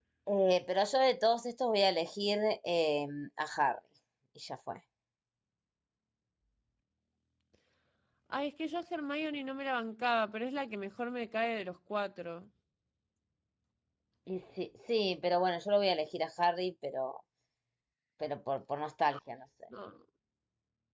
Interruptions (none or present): none